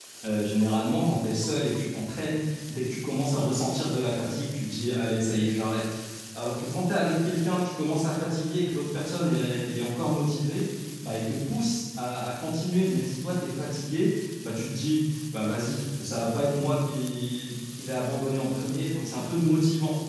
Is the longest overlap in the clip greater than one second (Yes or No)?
No